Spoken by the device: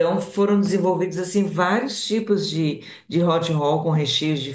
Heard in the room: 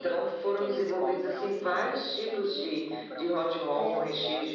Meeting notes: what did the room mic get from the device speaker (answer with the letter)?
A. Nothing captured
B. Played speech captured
B